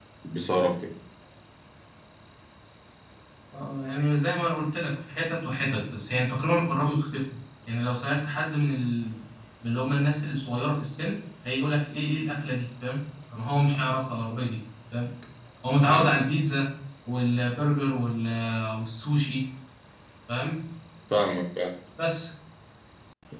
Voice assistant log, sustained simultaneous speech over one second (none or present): none